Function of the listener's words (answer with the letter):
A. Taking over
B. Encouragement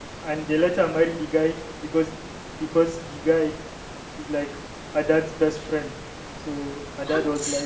B